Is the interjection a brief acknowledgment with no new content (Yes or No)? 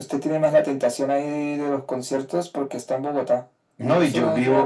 No